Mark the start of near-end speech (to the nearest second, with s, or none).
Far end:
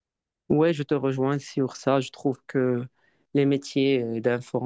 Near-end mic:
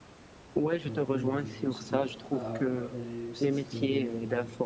1 s